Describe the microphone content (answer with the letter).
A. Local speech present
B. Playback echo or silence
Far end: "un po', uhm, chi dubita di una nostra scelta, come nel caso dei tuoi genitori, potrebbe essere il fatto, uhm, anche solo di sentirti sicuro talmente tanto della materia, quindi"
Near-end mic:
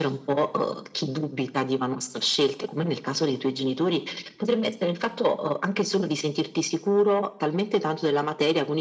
B